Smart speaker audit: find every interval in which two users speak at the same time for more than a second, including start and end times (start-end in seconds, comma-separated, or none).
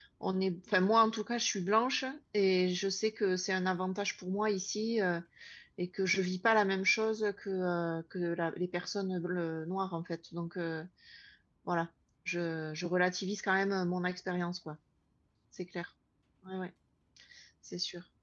none